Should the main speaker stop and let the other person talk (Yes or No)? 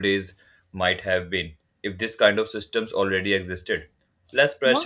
No